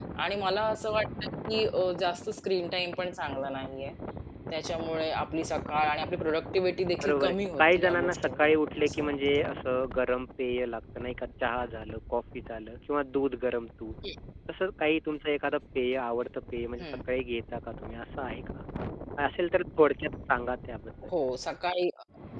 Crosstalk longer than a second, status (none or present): present